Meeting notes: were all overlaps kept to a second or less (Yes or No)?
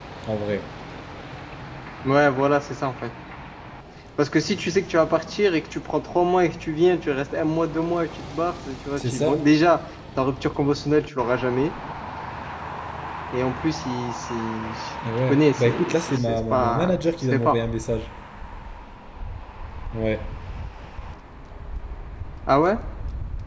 No